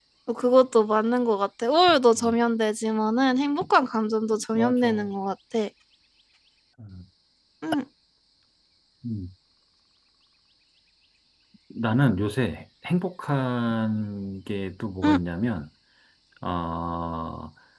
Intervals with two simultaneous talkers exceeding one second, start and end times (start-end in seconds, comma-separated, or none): none